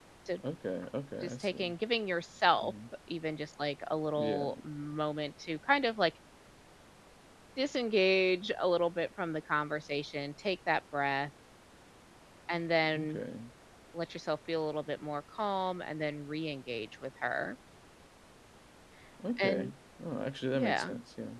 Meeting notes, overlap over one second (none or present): none